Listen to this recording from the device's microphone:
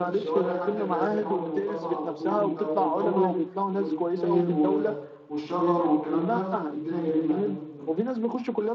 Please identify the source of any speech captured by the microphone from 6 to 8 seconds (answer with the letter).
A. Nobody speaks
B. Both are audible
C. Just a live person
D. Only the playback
B